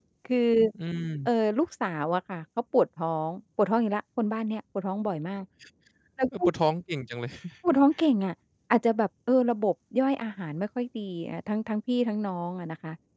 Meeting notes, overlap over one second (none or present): none